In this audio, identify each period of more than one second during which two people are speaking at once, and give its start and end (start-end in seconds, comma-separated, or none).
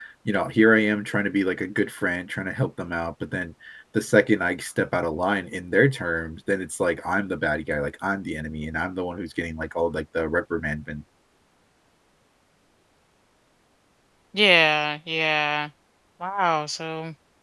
none